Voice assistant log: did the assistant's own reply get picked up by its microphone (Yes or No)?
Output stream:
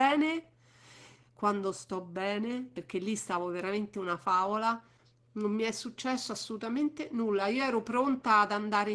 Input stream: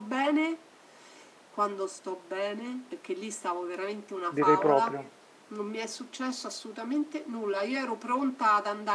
Yes